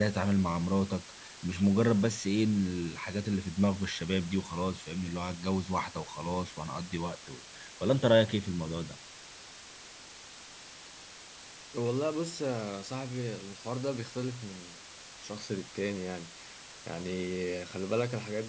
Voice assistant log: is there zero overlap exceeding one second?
Yes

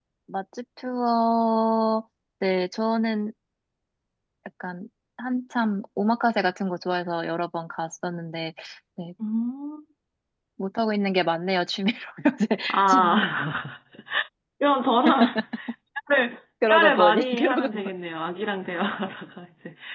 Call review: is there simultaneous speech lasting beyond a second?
Yes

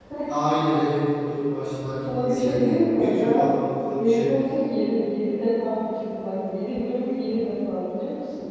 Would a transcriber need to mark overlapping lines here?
Yes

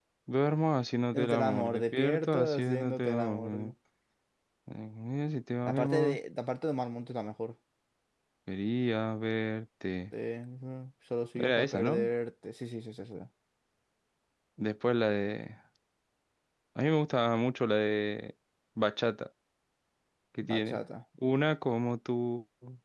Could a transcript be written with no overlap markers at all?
No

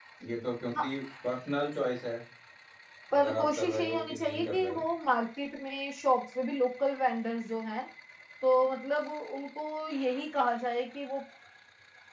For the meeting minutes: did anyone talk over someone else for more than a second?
Yes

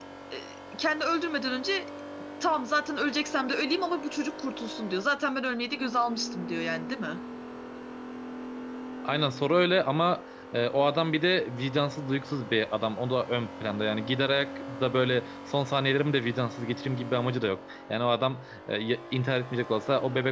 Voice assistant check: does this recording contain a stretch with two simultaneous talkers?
No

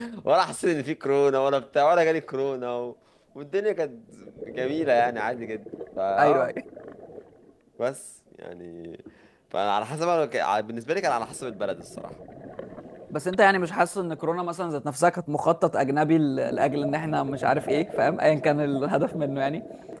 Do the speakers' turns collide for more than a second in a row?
No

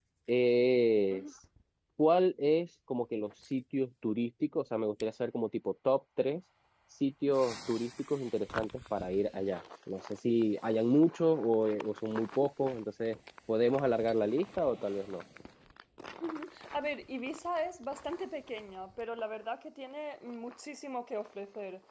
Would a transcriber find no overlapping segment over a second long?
Yes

